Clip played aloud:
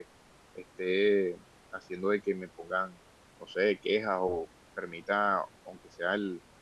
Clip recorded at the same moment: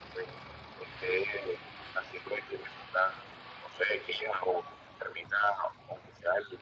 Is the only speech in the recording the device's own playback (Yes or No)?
Yes